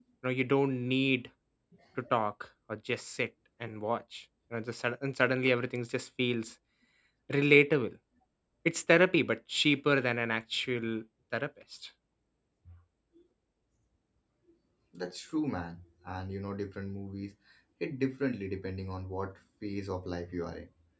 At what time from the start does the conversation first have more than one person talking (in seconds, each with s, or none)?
none